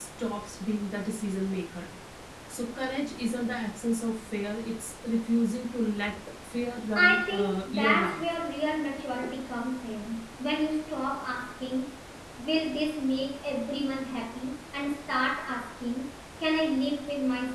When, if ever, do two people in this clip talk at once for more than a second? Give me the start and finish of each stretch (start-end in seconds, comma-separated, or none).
7.0-8.2